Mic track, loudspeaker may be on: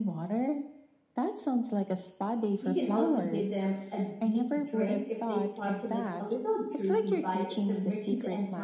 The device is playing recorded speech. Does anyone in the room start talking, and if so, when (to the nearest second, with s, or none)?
3 s